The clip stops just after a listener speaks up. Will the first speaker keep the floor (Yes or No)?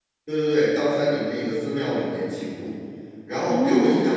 Yes